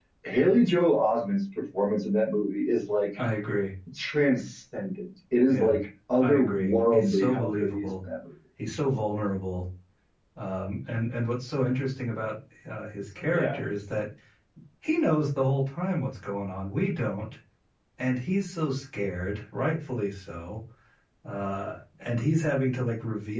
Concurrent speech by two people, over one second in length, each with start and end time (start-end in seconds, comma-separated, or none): 6.2-8.0